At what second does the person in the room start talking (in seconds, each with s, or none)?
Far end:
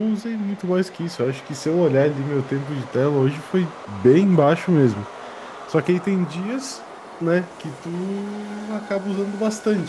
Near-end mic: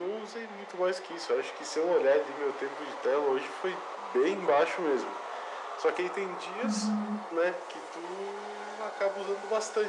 6.6 s